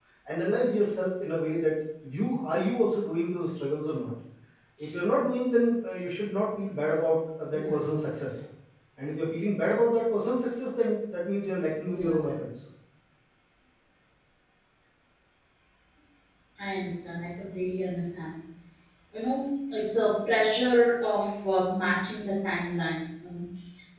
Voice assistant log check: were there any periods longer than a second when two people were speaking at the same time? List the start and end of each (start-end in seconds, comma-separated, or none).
none